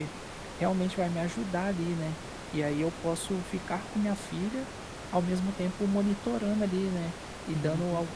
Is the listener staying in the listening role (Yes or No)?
Yes